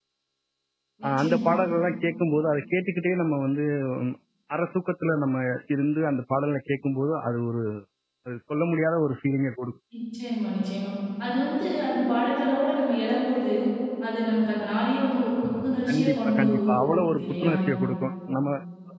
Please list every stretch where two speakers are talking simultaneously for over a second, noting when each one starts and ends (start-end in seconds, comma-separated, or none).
15.9-17.5